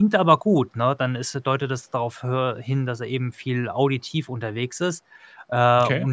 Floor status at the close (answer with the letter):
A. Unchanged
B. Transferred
A